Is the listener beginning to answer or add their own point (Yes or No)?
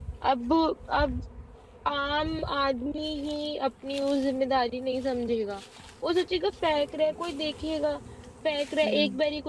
No